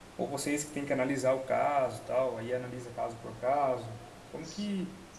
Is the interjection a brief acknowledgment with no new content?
No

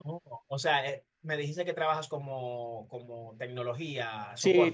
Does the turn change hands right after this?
Yes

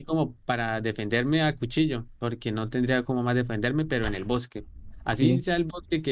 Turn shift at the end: No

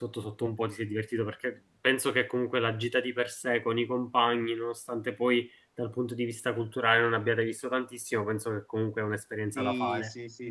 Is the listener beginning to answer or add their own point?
Yes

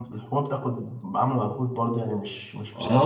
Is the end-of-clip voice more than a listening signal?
Yes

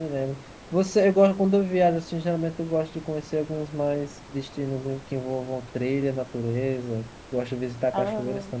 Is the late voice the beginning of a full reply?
No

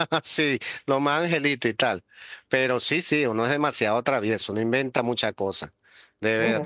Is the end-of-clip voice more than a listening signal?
Yes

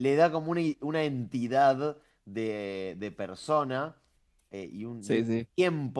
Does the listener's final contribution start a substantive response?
No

